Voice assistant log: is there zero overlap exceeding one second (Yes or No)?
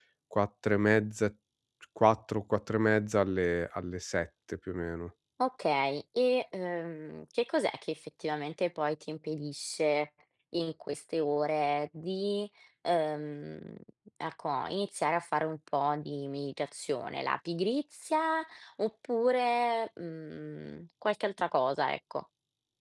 Yes